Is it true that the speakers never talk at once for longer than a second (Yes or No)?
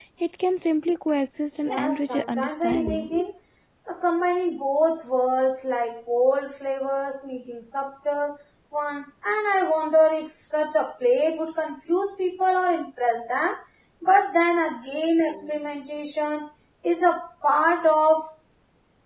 No